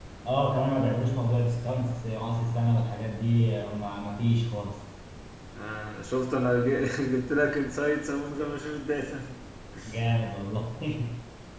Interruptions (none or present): none